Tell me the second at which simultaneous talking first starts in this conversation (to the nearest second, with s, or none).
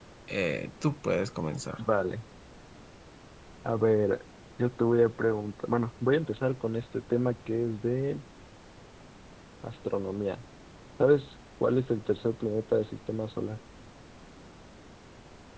none